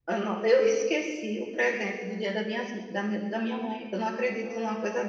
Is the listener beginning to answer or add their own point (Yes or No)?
Yes